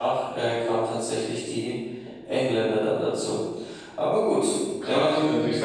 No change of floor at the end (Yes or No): No